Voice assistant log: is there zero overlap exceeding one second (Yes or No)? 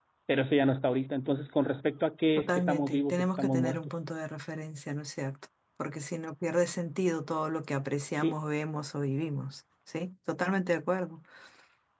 No